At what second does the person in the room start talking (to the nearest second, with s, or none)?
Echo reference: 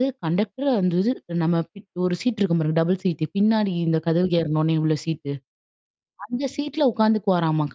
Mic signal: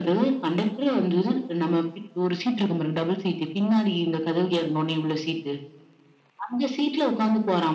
none